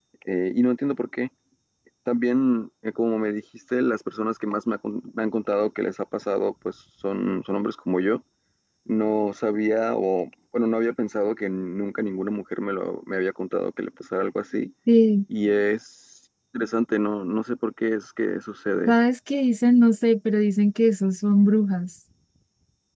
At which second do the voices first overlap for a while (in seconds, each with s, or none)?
none